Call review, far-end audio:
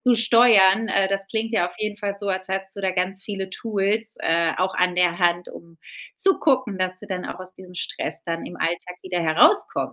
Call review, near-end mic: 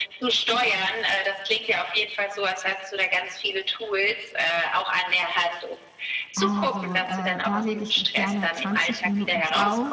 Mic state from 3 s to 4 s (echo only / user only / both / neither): echo only